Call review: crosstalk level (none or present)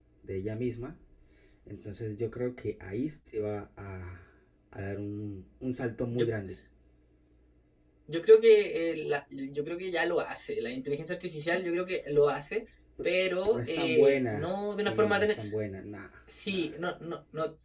present